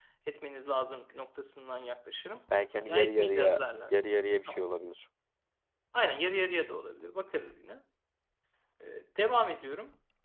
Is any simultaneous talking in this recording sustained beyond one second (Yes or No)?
Yes